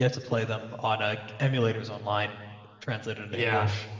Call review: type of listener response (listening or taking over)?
taking over